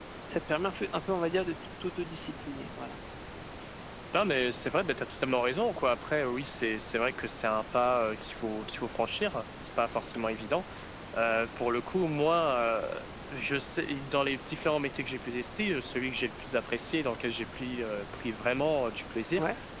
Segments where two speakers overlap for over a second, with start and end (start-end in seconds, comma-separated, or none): none